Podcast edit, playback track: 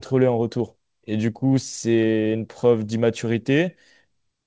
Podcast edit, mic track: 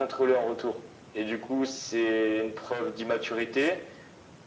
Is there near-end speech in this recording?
No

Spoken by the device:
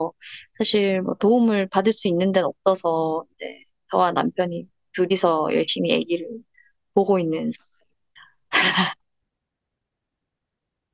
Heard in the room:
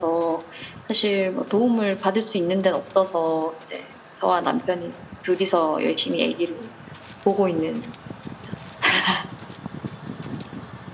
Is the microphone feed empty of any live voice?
Yes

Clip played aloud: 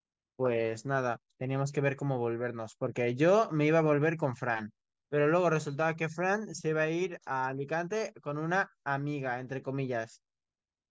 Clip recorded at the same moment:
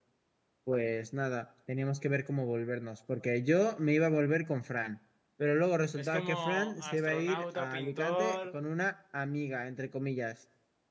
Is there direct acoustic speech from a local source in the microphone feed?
Yes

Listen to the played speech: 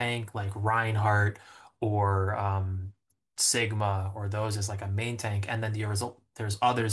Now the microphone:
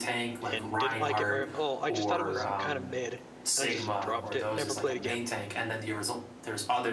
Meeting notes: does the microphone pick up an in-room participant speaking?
Yes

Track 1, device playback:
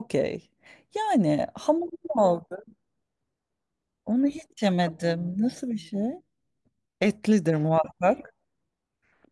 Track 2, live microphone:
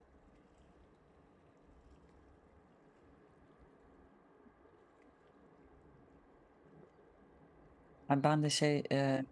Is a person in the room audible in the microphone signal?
Yes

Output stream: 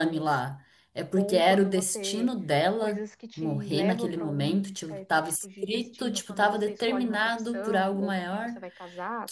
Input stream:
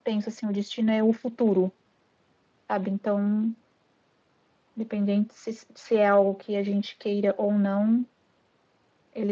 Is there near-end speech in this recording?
Yes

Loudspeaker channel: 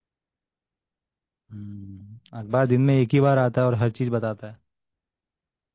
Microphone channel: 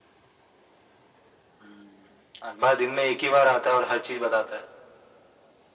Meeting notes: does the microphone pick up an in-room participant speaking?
No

